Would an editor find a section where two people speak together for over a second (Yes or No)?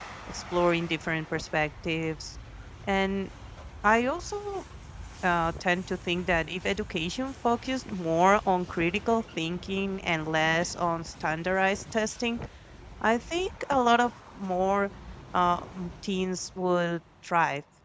No